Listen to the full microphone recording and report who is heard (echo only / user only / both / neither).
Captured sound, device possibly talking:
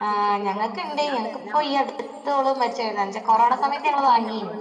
both